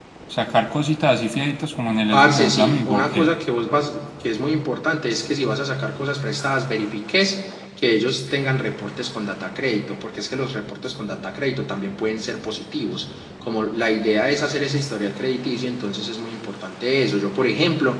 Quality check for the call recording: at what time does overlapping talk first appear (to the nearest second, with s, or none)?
2 s